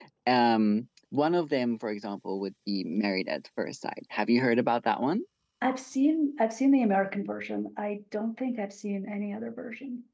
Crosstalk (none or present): none